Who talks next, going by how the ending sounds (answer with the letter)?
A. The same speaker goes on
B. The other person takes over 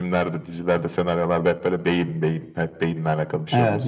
B